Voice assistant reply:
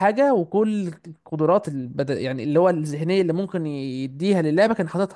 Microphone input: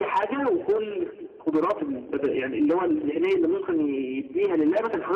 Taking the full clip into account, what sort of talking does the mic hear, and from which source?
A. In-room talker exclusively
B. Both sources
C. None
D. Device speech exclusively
D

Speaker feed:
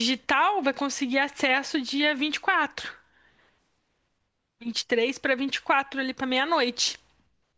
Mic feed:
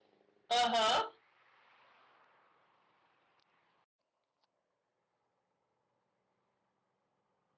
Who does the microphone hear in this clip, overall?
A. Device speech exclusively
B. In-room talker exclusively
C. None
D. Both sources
B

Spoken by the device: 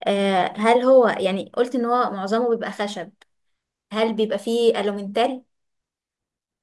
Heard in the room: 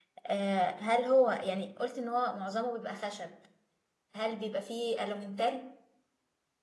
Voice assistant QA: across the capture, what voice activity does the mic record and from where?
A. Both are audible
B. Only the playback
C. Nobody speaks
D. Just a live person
B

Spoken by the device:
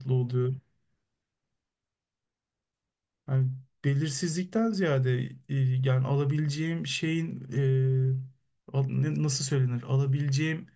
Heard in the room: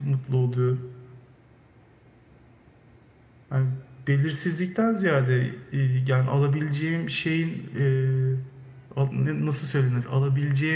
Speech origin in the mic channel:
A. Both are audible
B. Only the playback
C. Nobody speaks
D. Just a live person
B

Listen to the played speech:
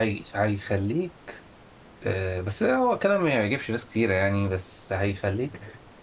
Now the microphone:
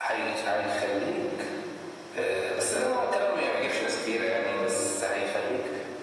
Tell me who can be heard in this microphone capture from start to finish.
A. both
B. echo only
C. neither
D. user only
B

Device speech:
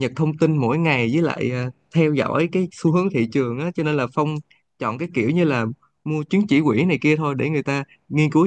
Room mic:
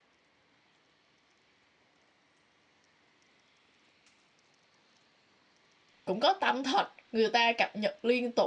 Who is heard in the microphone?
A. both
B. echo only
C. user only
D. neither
C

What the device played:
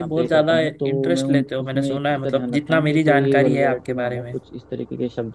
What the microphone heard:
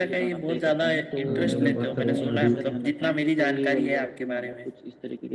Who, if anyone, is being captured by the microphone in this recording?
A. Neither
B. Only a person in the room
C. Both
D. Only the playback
C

